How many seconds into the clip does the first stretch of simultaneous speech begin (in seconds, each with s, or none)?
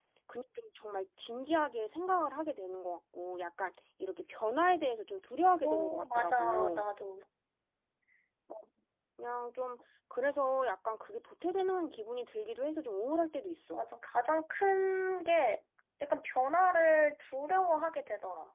5.6 s